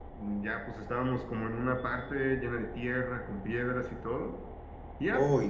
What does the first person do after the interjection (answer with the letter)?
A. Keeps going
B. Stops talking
A